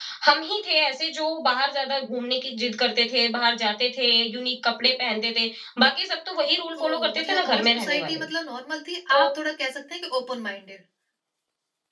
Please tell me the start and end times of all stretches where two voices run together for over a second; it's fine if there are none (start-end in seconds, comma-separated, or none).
6.8-8.2